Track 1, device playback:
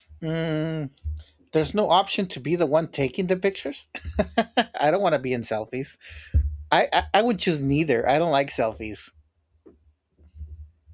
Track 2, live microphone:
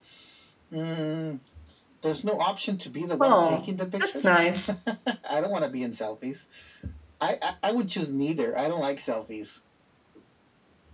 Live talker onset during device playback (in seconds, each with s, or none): 3.2 s